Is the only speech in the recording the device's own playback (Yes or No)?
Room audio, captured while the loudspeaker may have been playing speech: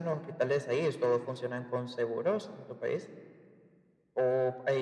Yes